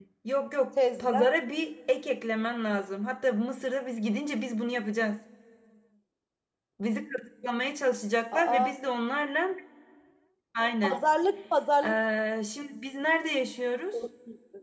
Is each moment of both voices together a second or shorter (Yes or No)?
Yes